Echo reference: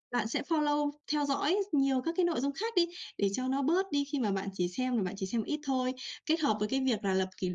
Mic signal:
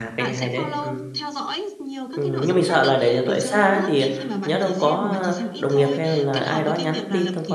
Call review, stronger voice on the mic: user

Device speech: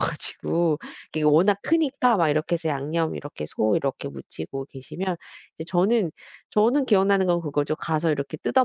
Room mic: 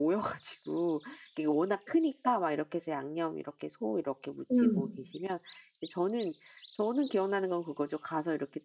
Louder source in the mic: user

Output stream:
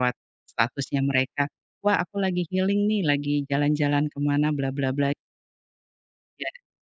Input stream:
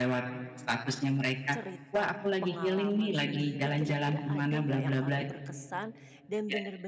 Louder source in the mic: echo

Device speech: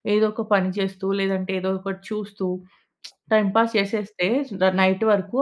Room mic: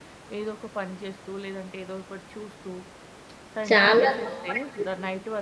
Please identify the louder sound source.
user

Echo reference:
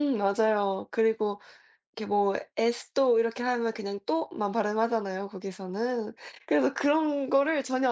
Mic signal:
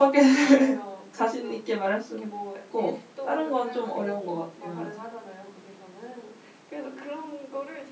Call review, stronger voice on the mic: user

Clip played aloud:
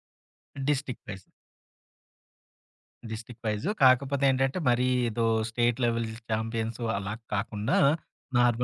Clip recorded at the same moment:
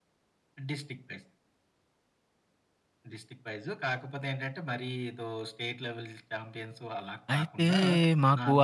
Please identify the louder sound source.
user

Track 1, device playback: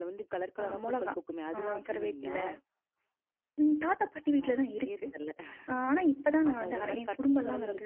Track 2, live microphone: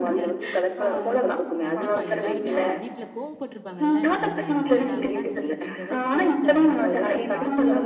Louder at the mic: echo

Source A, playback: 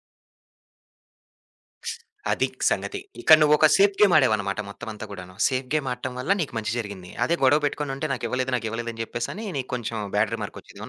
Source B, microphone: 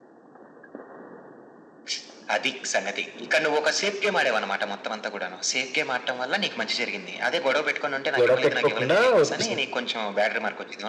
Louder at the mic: user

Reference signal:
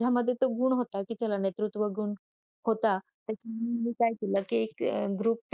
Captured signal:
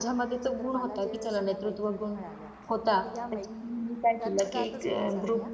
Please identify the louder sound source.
echo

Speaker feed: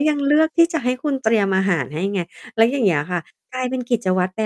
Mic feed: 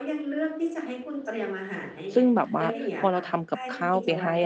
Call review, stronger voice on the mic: user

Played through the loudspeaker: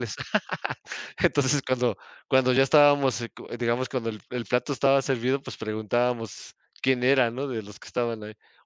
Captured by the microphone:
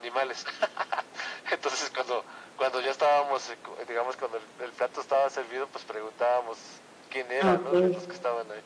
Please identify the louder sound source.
user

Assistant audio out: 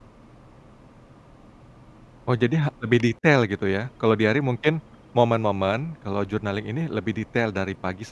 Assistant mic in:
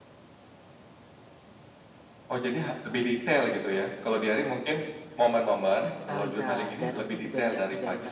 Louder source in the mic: echo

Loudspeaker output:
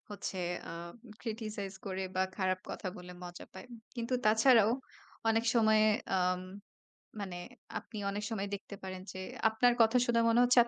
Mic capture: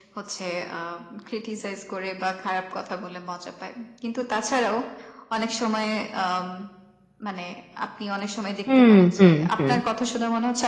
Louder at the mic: user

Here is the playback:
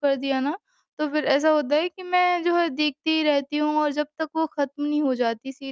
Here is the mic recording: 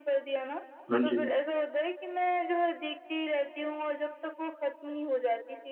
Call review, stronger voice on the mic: user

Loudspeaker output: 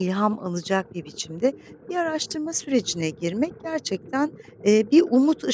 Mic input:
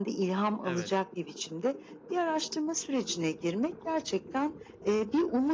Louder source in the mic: echo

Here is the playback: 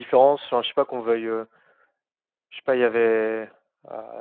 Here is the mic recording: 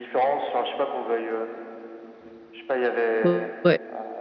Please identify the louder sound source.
user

